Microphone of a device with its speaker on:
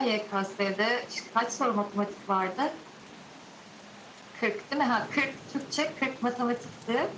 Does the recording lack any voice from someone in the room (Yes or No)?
Yes